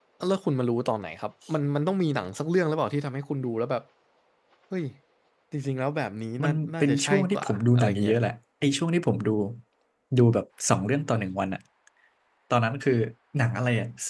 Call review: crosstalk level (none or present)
present